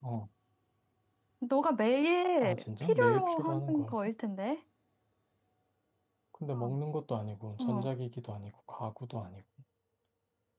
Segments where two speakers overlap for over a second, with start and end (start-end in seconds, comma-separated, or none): 2.4-3.9